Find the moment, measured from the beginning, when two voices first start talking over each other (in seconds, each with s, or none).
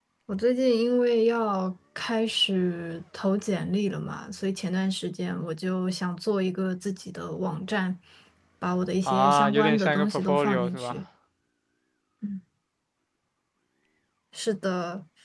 9.1 s